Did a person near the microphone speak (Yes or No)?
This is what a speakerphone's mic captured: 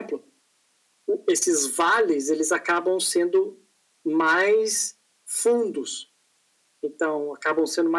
No